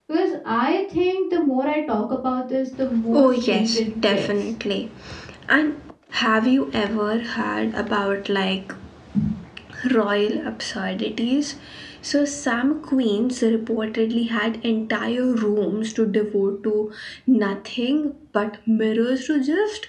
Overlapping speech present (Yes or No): Yes